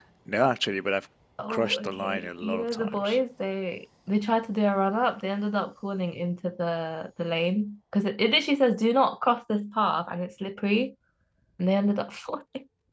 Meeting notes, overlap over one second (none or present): present